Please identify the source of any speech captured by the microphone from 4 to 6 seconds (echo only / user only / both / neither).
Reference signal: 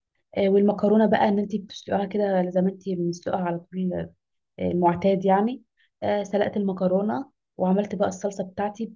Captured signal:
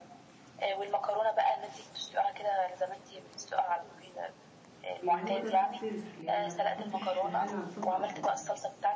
both